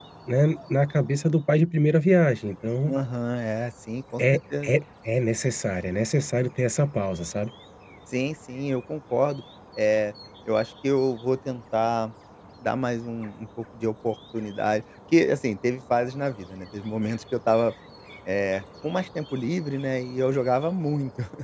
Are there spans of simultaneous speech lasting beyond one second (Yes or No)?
No